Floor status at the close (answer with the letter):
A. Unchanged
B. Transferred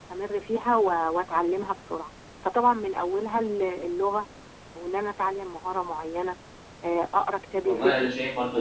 B